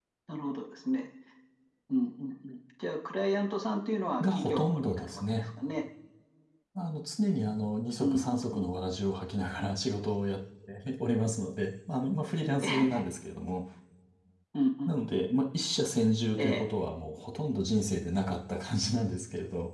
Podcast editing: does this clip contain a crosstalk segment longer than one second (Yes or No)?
Yes